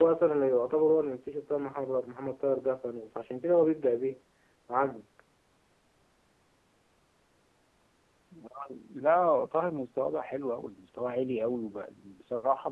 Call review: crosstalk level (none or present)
none